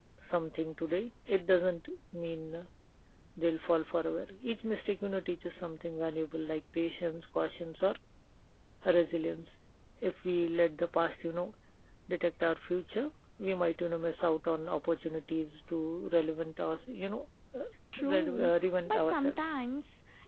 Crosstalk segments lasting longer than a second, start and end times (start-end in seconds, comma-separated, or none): 18.0-19.4